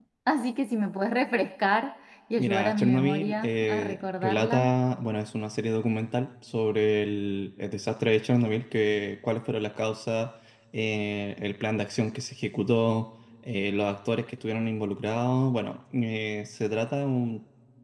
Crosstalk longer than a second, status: present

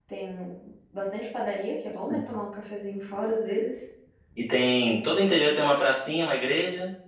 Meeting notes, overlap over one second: none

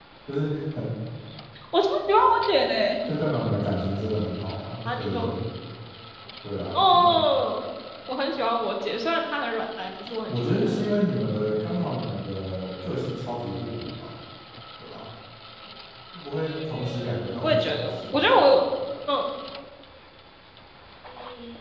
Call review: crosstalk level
present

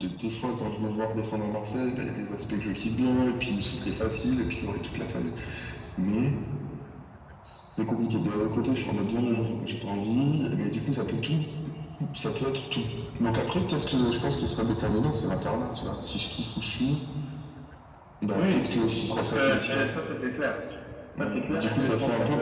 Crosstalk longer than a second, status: present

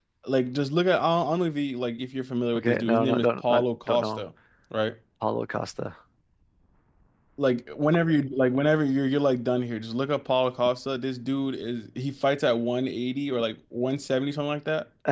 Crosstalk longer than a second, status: present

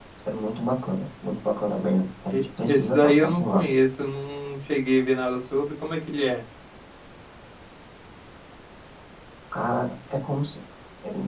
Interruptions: present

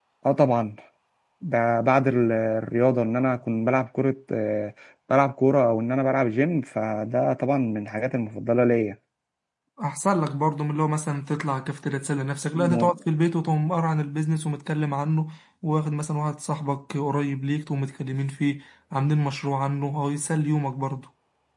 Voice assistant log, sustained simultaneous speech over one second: none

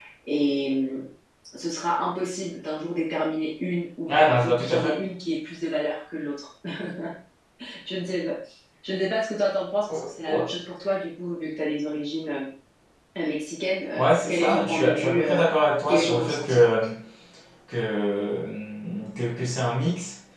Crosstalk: present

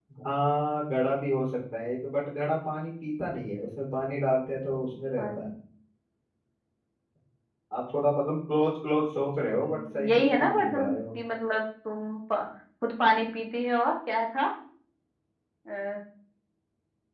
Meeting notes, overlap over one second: present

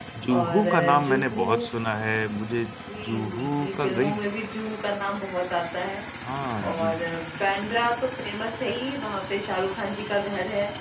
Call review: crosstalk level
present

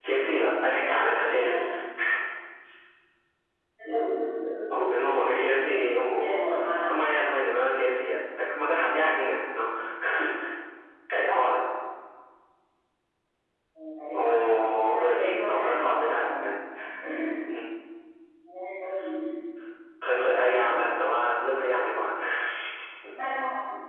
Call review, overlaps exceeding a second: present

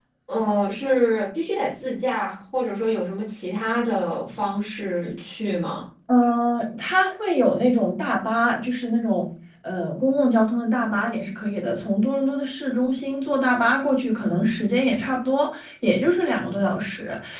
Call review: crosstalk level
none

